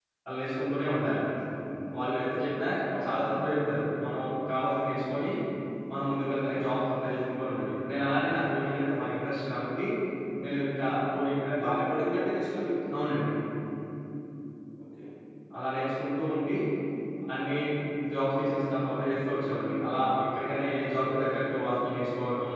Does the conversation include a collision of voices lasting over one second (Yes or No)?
No